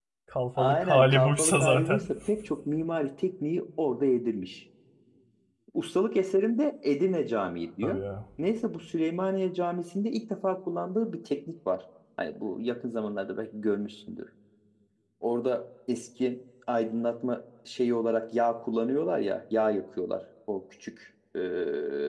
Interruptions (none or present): present